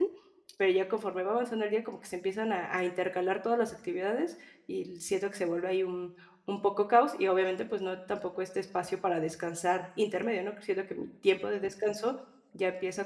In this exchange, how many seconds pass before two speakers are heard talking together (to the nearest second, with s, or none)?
none